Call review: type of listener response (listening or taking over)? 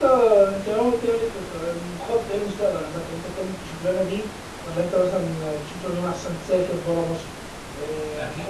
taking over